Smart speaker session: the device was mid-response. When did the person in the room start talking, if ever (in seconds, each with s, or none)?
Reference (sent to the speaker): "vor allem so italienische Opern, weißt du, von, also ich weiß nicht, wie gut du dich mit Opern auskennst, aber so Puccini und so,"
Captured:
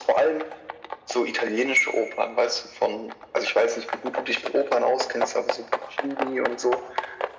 none